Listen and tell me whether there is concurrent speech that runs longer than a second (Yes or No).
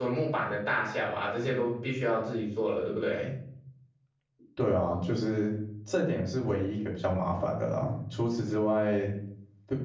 No